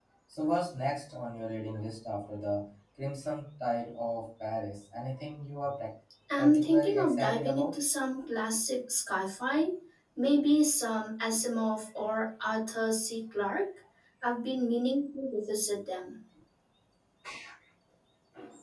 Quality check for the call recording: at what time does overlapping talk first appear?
6 s

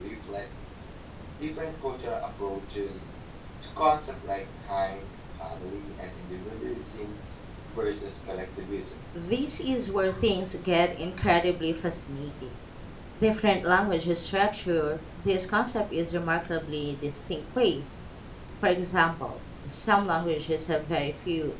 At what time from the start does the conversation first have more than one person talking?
none

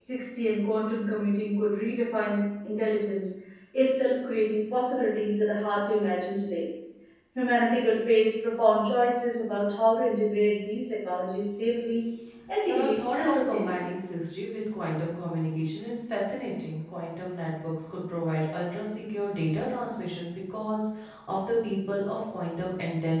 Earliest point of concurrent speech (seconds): 13 s

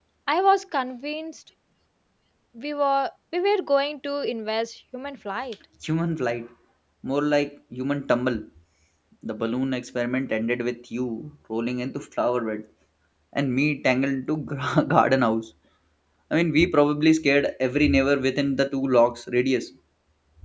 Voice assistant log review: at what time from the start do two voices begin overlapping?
none

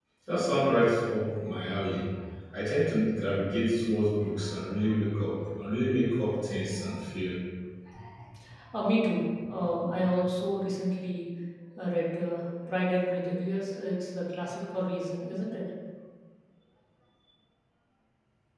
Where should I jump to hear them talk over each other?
none

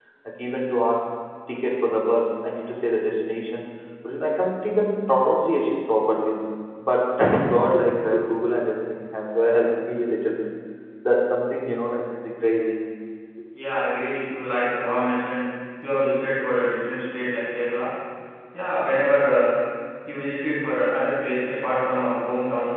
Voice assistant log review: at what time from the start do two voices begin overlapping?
none

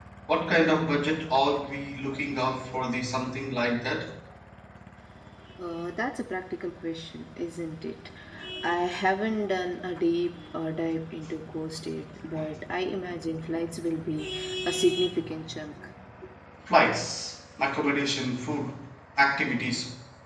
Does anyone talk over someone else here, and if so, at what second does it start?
none

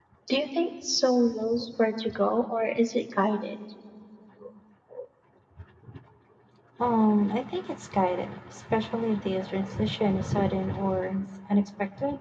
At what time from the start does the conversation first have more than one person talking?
none

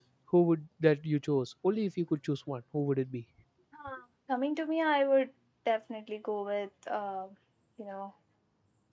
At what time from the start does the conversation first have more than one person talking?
none

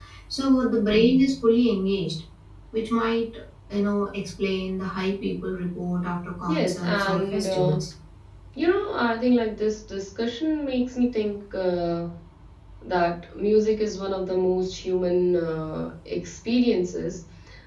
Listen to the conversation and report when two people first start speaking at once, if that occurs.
6 s

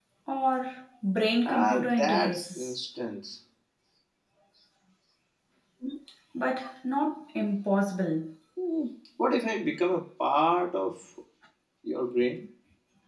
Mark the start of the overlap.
1 s

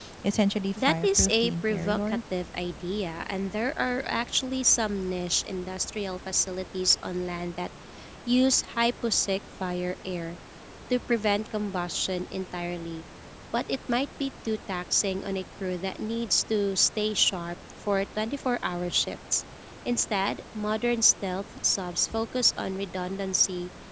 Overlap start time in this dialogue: 1 s

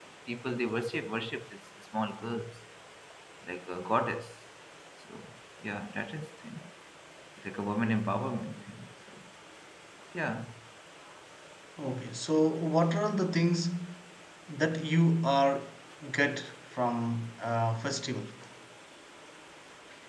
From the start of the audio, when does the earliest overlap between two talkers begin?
none

